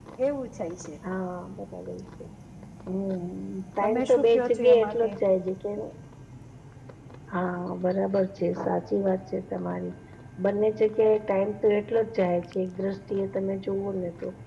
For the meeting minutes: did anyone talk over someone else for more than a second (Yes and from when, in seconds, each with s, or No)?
Yes, from 3.8 s